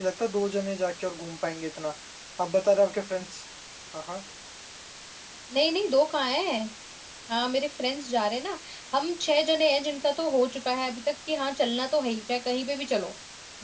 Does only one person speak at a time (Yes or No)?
Yes